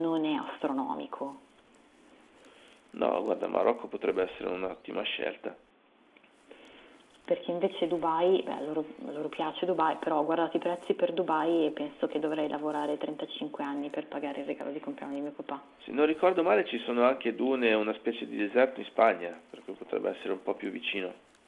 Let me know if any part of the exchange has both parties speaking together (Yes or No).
No